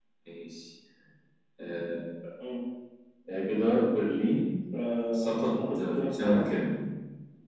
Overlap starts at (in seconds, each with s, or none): 5.1 s